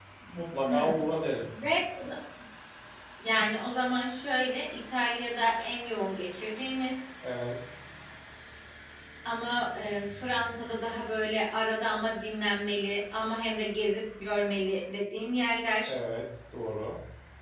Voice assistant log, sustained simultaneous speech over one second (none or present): none